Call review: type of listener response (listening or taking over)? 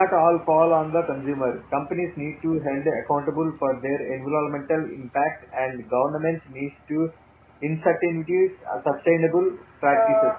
taking over